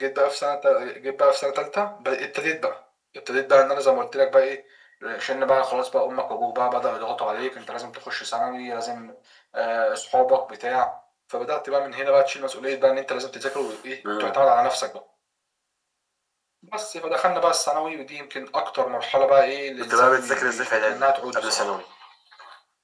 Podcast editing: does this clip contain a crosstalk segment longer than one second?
Yes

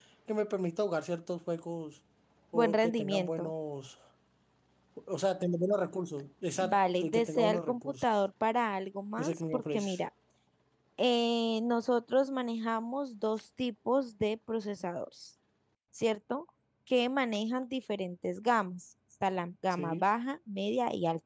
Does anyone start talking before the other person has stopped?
Yes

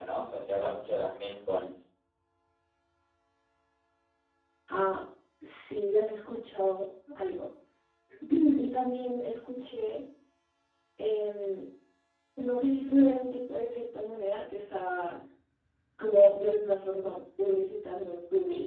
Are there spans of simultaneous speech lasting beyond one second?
No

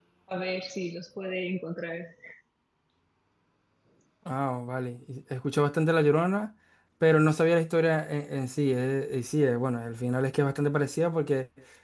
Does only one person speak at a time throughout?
Yes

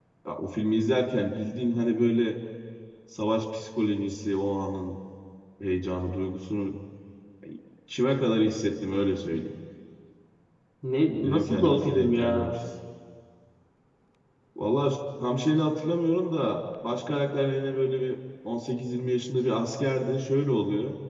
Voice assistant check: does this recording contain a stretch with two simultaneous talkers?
Yes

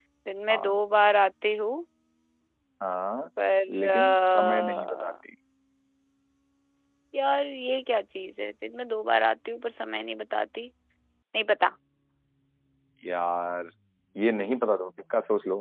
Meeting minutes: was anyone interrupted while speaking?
Yes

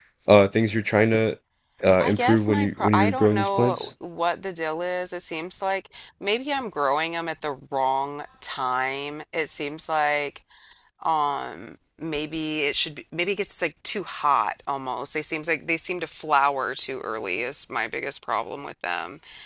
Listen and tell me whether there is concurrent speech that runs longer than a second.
Yes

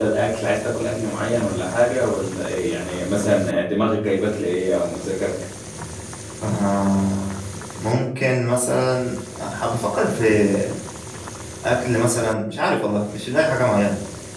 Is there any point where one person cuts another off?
No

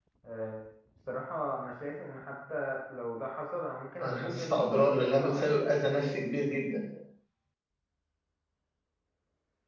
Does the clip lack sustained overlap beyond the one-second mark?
No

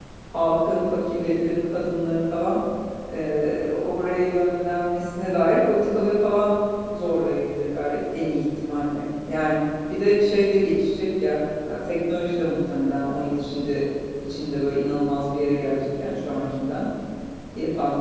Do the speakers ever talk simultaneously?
No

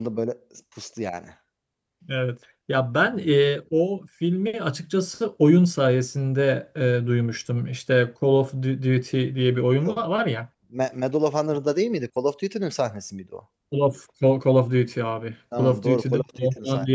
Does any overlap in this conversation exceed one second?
Yes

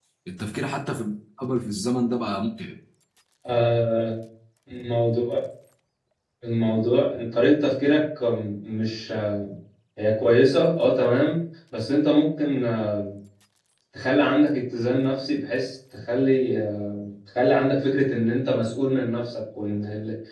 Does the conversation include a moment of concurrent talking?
No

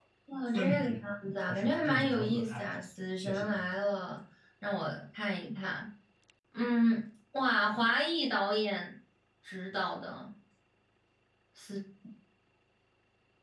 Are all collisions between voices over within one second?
No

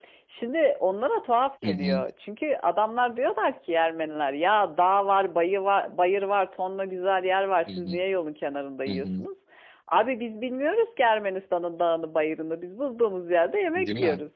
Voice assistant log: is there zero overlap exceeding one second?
Yes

